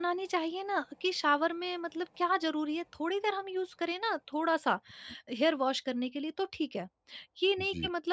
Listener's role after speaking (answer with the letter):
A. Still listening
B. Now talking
A